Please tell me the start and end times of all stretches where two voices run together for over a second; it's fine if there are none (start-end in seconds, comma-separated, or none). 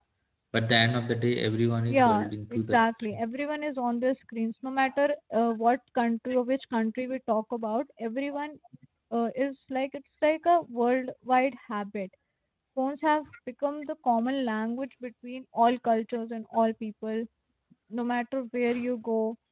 1.9-3.2